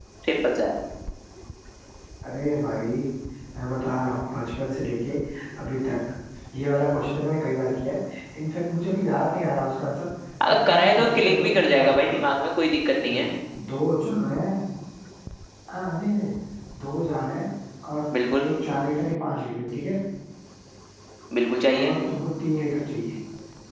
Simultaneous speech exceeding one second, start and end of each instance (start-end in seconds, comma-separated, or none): 10.5-12.3